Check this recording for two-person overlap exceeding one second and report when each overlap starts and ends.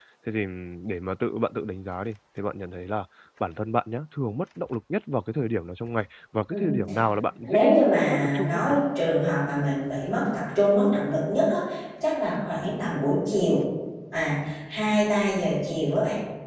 7.5-8.7

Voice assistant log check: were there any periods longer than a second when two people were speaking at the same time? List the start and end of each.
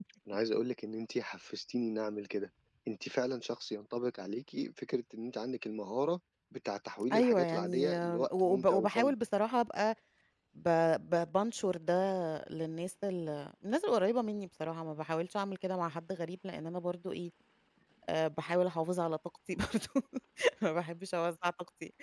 7.1-9.1

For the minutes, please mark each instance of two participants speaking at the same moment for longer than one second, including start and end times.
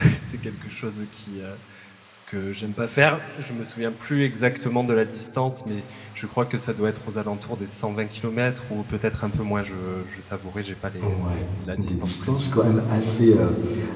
11.8-13.2

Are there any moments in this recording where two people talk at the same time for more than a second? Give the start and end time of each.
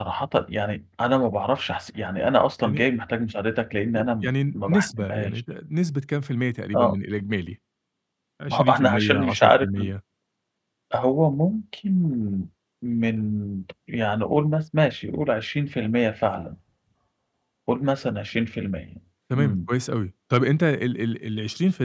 4.0-5.4, 8.5-9.9

